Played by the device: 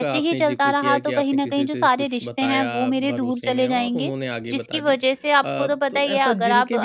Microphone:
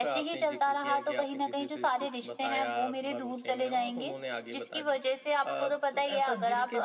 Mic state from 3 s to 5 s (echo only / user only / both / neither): echo only